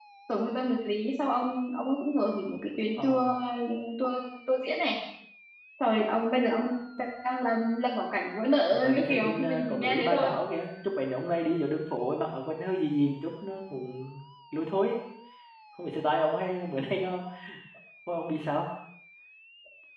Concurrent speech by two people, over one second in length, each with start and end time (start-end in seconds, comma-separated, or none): 8.8-10.3